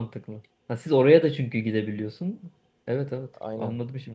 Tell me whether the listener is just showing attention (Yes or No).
No